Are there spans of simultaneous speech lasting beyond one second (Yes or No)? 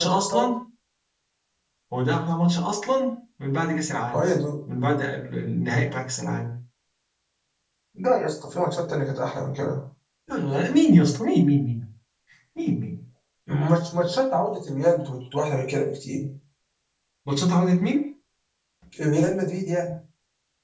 No